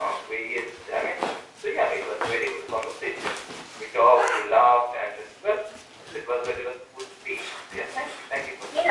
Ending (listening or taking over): taking over